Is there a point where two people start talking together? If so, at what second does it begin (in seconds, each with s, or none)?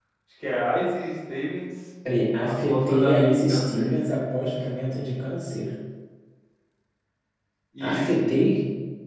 2.4 s